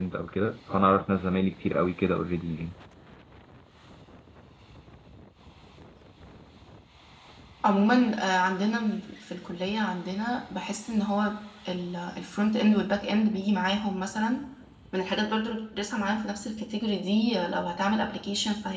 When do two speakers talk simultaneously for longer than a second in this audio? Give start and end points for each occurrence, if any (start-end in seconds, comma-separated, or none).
none